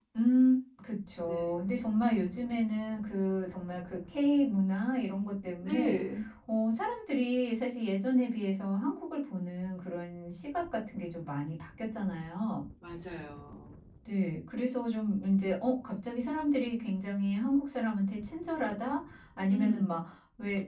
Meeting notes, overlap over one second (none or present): none